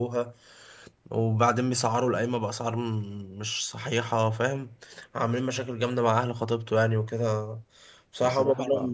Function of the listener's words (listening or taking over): listening